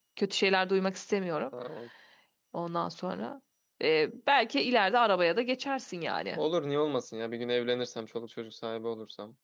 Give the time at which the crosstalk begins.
none

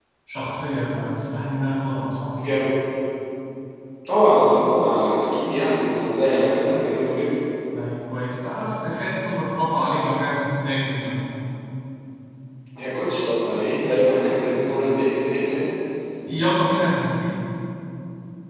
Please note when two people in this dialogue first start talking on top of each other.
none

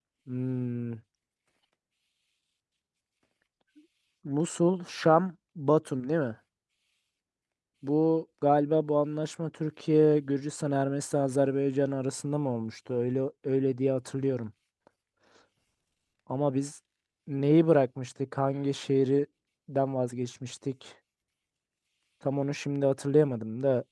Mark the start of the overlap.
none

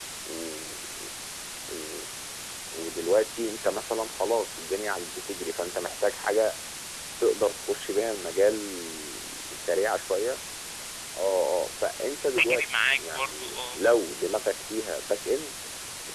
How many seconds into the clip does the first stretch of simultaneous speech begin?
12.2 s

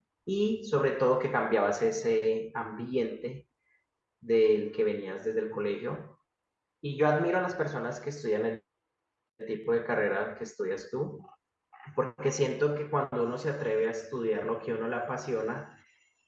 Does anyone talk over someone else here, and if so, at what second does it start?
none

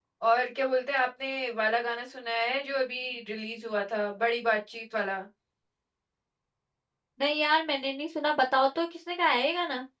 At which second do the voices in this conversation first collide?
none

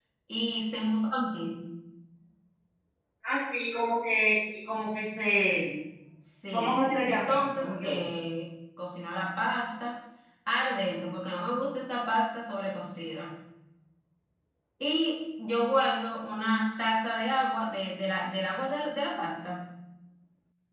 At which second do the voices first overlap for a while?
6.5 s

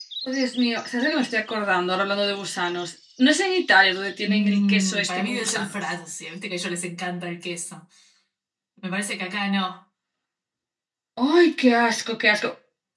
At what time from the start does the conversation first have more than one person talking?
4.2 s

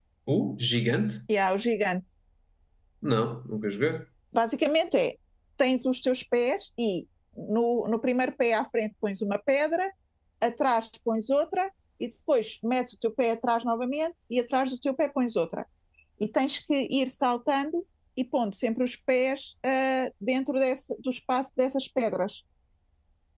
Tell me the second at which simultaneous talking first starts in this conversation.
none

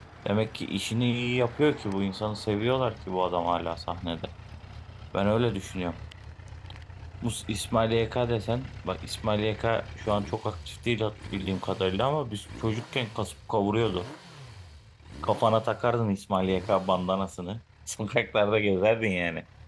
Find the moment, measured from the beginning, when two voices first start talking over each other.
none

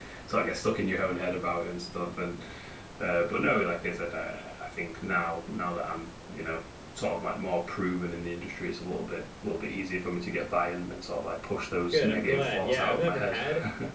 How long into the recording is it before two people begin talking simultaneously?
11.9 s

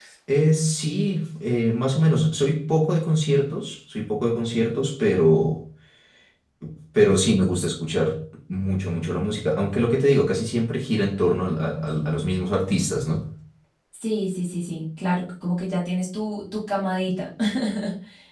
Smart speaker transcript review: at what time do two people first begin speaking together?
none

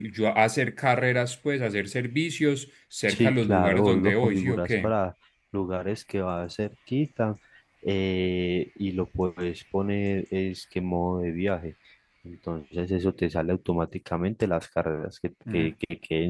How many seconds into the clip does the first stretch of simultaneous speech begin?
3.1 s

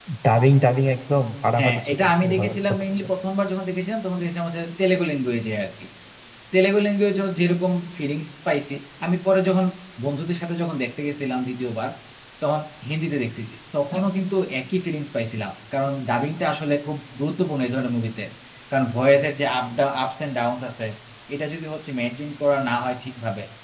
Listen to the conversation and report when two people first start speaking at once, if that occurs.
1.6 s

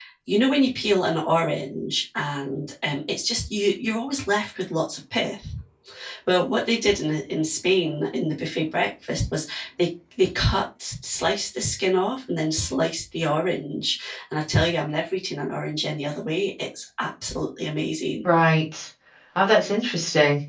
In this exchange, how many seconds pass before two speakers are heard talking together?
none

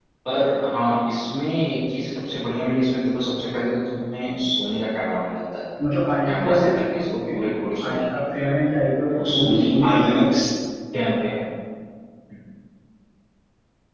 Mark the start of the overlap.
6.2 s

